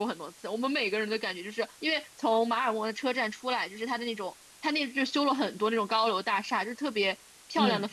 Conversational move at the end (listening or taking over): listening